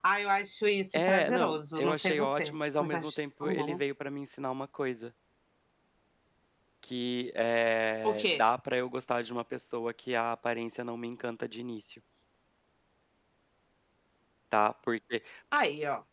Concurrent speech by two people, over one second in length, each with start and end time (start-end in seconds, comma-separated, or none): 0.9-3.8